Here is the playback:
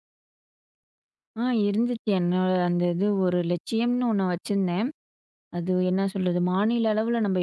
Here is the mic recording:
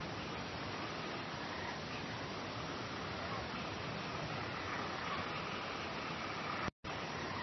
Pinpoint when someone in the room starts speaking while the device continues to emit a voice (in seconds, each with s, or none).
none